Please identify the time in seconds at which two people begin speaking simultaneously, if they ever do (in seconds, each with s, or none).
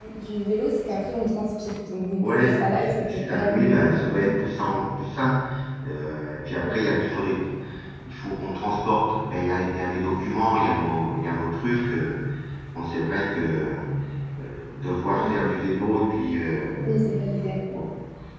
2.2 s